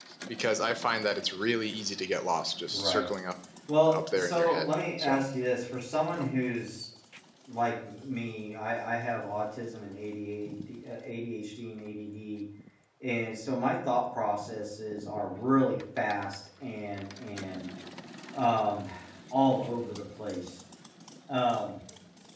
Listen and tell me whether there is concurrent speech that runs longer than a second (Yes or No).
Yes